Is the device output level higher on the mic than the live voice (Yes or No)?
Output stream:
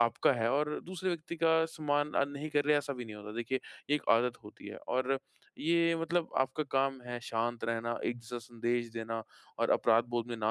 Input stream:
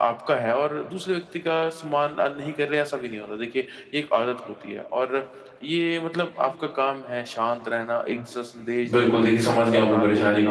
No